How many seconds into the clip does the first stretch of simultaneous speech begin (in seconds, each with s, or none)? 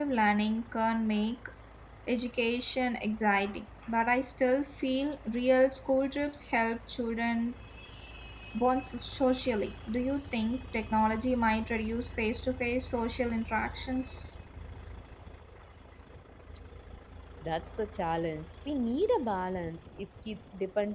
none